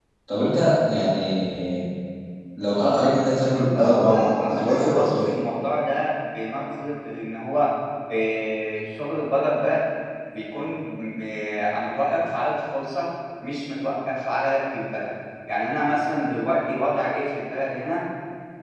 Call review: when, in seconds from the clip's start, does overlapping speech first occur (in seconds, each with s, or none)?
3.7 s